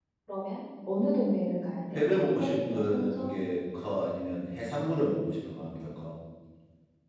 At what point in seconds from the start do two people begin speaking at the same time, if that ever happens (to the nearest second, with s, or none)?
2 s